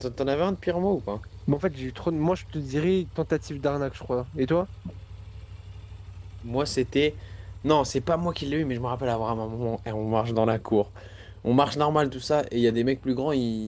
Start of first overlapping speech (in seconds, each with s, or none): none